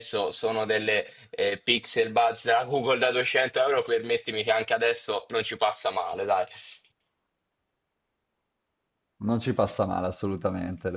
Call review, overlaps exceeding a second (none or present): none